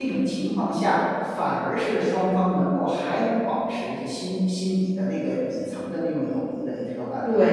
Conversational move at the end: taking over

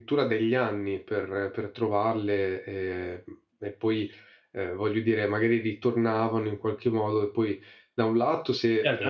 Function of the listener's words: taking over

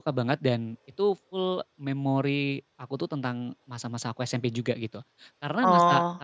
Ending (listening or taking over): listening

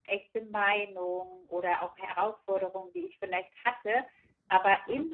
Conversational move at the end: listening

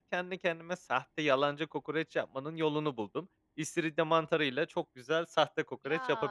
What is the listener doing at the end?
taking over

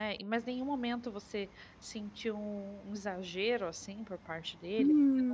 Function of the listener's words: taking over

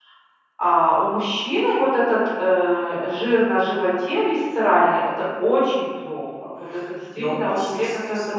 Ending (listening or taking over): taking over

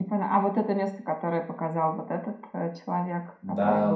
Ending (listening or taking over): taking over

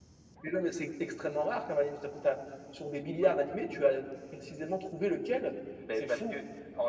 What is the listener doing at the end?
taking over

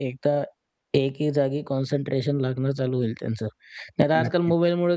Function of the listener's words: listening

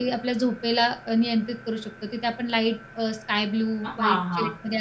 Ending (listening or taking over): taking over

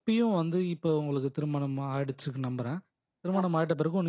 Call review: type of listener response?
listening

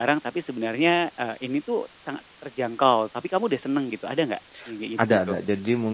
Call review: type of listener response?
taking over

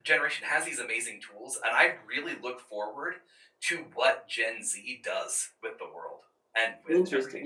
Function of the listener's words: taking over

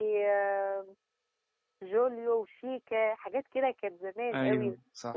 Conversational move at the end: listening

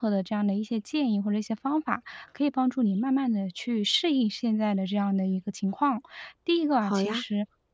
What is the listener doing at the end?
listening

